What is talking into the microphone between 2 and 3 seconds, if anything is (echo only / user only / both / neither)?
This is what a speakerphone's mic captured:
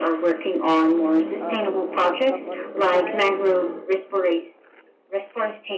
both